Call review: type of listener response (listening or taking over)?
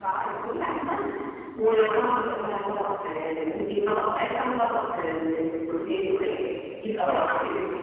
listening